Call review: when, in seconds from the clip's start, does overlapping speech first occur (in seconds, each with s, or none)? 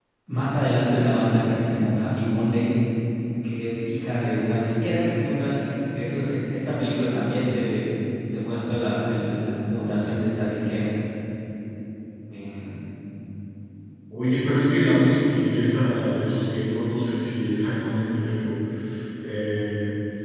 none